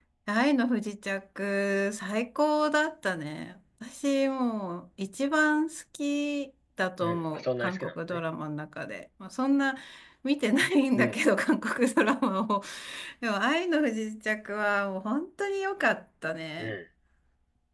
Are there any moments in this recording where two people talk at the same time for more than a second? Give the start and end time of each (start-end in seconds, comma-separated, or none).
7.0-8.2